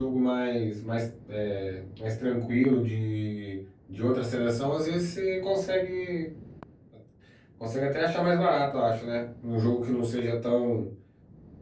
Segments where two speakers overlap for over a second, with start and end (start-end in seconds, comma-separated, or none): none